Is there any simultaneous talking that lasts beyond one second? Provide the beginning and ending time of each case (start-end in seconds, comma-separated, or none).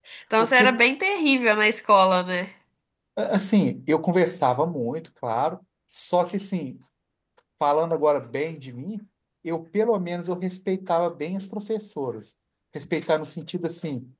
none